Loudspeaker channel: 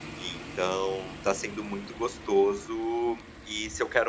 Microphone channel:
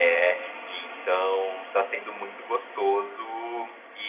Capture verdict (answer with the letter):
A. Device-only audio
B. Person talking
A